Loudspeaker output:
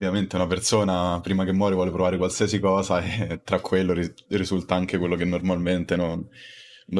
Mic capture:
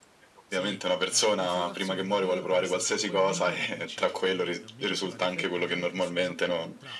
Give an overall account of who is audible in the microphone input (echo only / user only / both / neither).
both